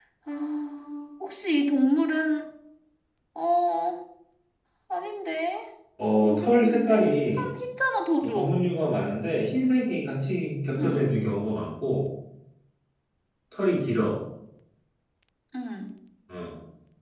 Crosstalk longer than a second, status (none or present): present